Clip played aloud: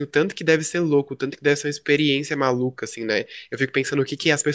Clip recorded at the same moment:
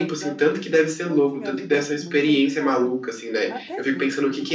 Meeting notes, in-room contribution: present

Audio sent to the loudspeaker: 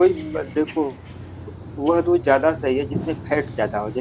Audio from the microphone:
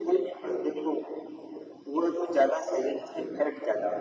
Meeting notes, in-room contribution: none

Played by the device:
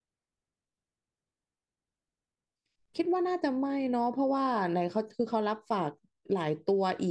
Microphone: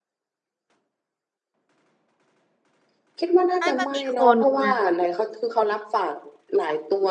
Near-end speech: present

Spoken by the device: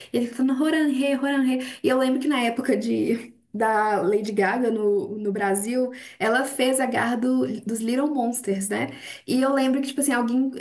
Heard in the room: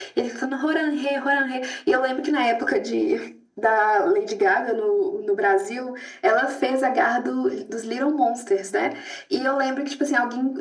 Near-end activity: none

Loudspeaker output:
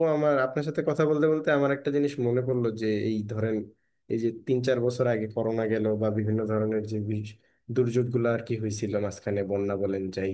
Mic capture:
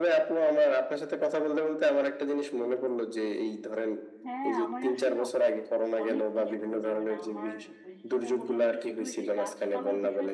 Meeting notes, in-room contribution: present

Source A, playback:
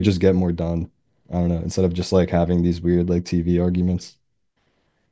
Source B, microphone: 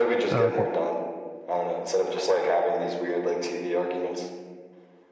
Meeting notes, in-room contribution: present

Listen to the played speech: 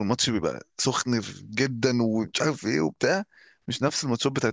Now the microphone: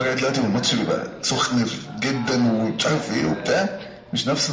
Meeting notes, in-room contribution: present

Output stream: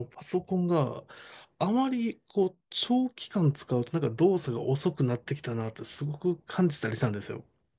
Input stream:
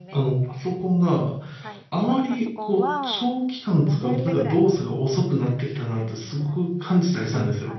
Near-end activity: present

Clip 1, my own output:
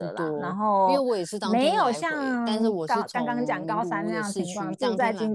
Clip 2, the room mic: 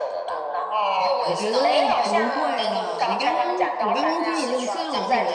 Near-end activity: present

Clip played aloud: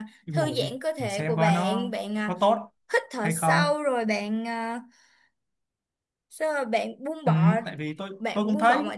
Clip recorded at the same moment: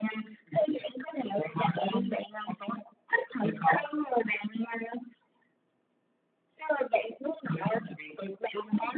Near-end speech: none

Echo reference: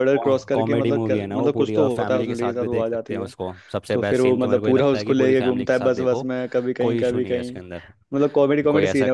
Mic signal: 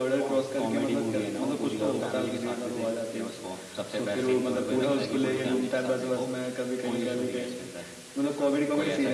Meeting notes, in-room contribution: none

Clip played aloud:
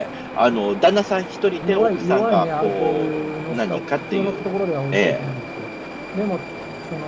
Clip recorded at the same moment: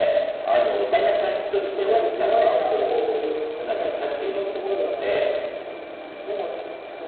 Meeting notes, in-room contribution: none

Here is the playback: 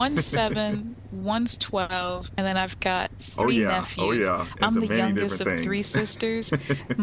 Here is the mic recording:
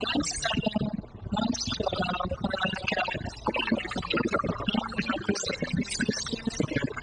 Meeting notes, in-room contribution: none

